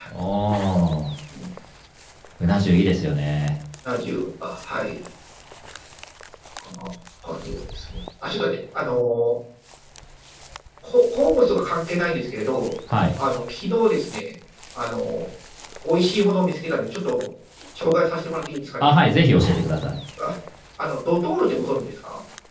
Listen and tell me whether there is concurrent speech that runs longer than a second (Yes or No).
No